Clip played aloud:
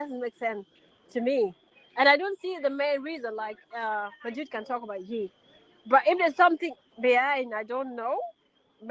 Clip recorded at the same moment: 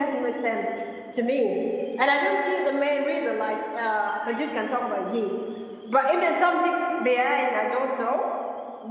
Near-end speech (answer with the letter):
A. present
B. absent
B